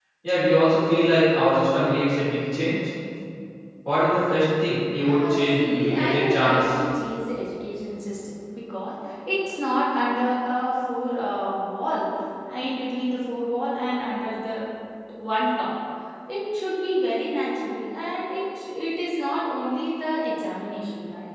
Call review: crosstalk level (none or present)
present